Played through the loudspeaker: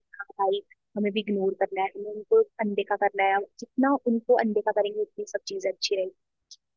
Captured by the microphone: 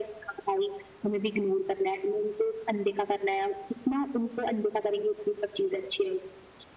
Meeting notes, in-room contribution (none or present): none